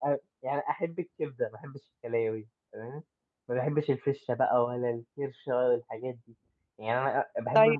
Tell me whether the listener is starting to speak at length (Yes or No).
No